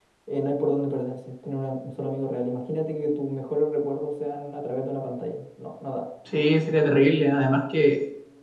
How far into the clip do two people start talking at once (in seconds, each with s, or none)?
none